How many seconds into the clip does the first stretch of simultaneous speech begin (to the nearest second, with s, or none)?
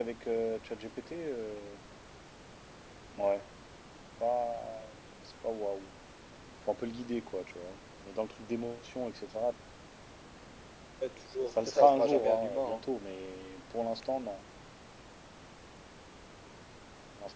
11 s